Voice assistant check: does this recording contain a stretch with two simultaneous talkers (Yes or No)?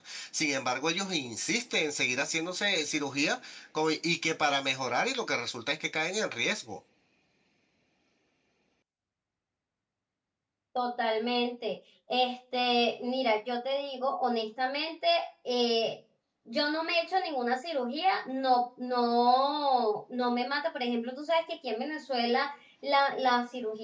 No